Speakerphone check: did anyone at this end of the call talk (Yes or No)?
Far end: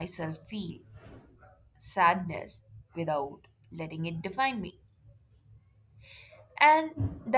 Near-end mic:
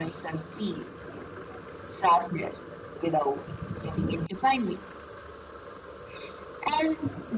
No